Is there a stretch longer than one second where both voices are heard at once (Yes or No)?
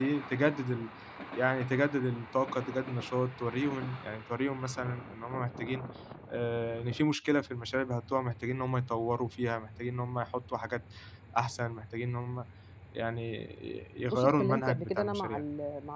Yes